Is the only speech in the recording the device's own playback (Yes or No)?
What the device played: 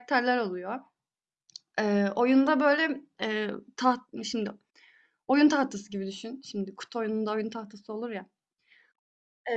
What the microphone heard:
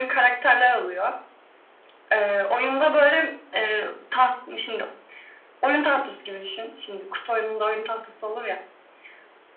Yes